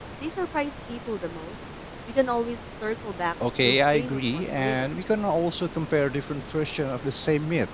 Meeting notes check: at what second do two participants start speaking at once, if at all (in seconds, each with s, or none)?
3.4 s